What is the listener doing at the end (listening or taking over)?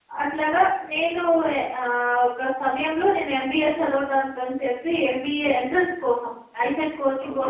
listening